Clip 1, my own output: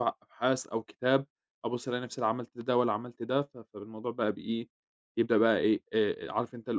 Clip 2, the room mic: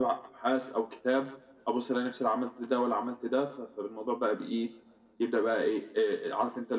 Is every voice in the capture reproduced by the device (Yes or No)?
Yes